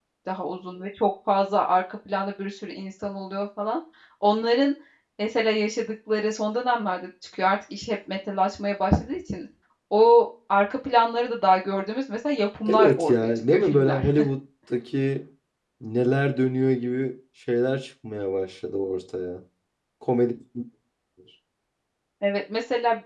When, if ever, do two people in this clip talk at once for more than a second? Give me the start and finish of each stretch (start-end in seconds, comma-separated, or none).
12.7-14.0